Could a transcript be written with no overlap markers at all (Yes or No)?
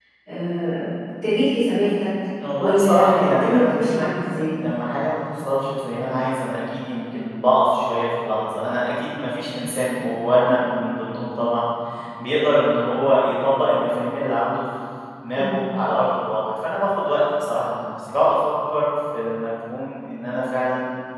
No